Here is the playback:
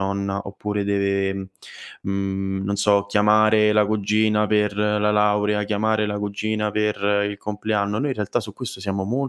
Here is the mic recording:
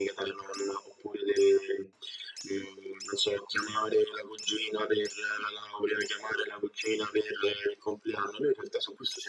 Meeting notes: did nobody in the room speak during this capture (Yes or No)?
Yes